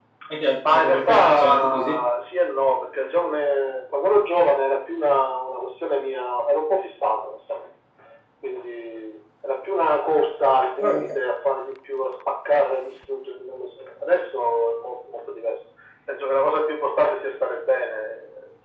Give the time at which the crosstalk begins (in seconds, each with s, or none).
0.6 s